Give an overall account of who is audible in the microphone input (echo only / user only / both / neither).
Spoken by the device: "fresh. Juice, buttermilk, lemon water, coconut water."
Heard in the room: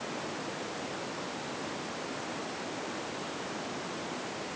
neither